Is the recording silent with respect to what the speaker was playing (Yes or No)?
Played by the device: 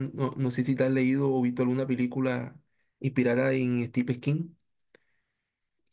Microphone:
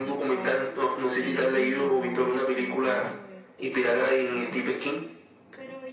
No